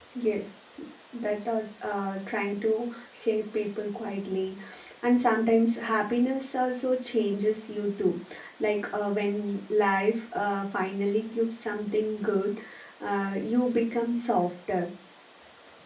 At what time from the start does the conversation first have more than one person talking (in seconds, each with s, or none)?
none